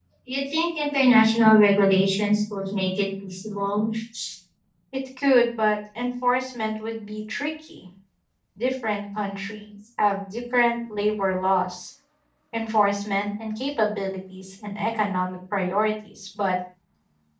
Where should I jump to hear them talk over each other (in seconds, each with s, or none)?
none